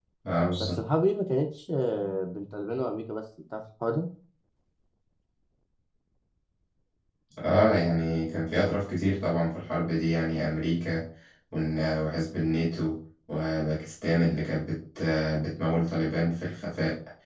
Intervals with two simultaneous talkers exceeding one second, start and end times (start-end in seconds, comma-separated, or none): none